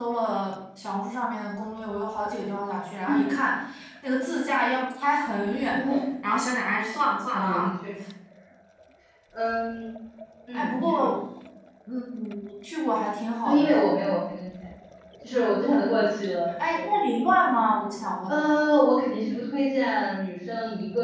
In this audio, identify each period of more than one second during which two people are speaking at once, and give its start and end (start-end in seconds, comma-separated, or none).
none